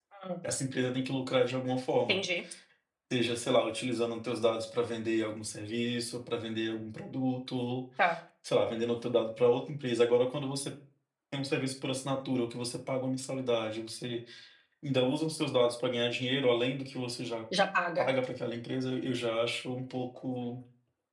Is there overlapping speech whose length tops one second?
No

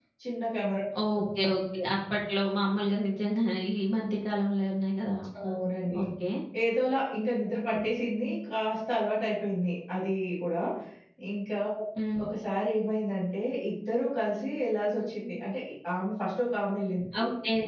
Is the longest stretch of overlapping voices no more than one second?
Yes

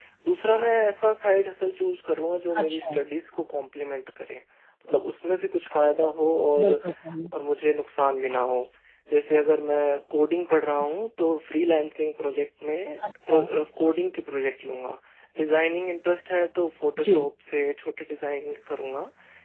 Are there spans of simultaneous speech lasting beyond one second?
No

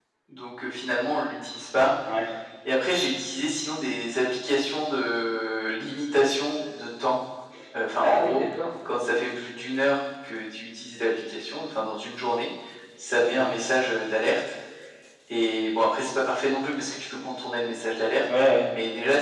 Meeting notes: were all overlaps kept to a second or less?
Yes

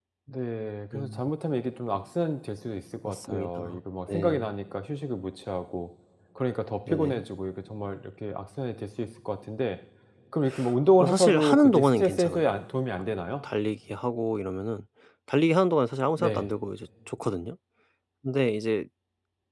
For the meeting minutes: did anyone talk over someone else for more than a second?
Yes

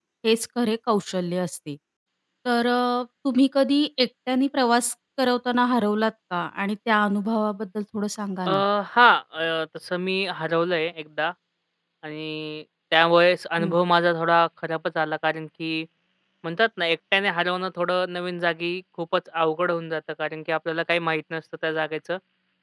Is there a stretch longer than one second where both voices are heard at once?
No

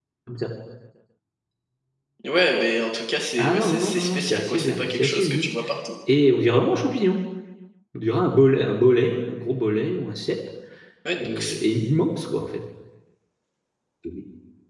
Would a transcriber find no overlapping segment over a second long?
No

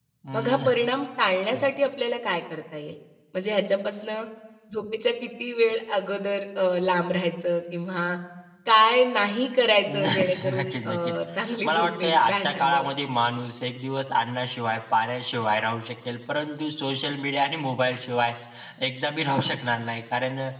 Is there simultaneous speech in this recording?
Yes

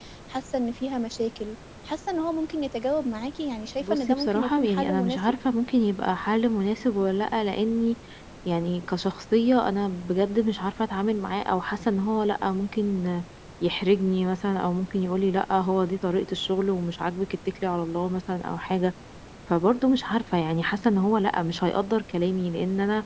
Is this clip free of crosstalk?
No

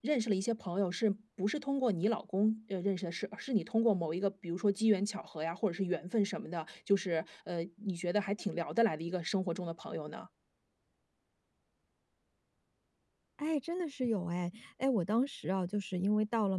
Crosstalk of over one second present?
No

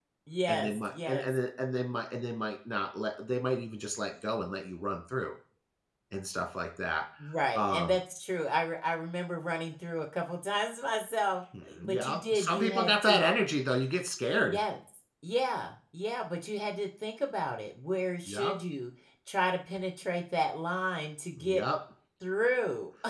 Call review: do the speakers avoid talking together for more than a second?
No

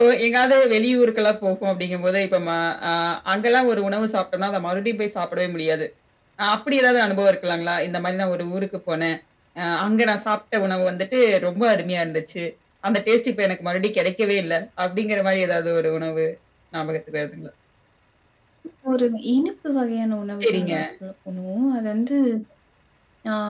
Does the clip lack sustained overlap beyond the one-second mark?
Yes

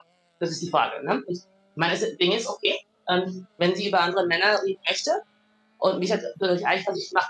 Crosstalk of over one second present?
No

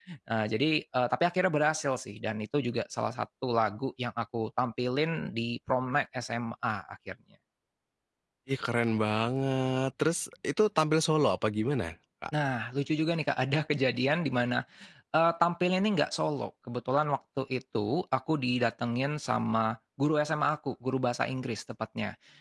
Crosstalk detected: No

